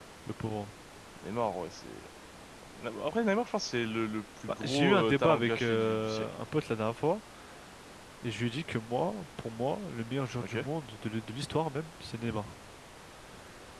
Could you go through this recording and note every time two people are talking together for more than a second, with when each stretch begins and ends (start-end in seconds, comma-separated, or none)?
4.6-6.4